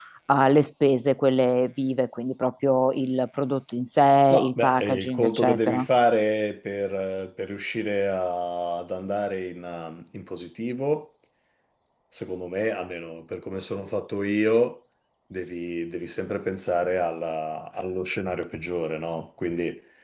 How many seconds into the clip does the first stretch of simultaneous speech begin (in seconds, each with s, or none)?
4.3 s